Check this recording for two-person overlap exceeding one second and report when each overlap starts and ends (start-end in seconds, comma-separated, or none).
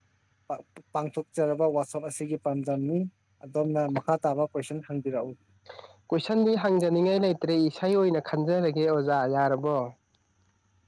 none